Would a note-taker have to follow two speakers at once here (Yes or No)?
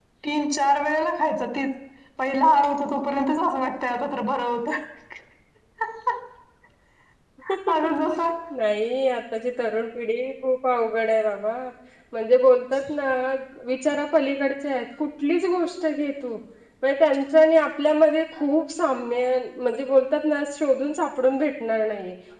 No